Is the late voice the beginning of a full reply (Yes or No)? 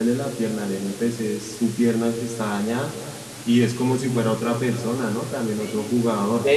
Yes